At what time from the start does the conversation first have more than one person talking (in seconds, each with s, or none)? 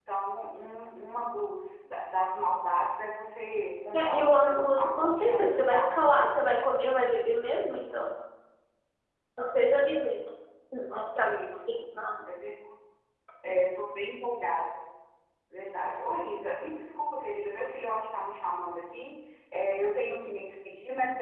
3.9 s